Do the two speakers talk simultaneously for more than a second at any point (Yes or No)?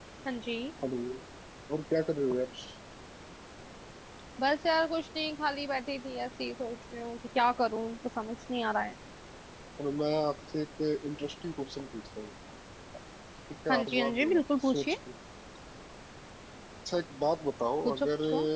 Yes